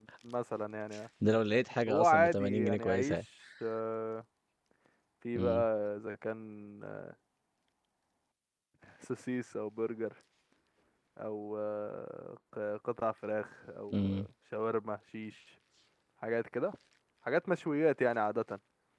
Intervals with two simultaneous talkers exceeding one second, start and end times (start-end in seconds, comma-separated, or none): 1.9-3.2